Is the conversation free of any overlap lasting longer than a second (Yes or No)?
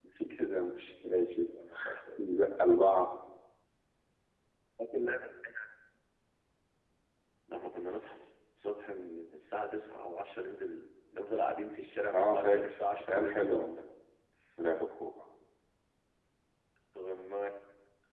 No